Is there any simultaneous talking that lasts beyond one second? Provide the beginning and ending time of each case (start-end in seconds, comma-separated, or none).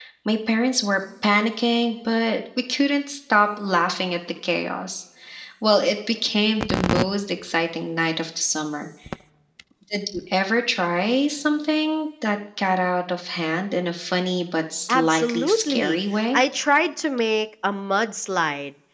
14.9-16.4